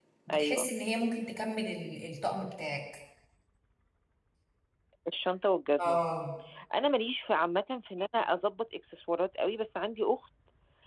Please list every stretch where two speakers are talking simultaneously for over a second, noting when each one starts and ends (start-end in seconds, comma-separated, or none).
none